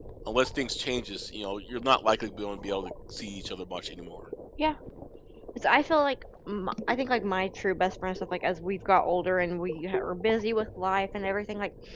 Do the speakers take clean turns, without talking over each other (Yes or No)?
Yes